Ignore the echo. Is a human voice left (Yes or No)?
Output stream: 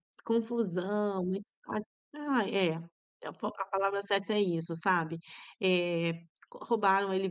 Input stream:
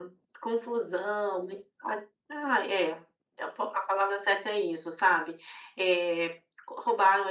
No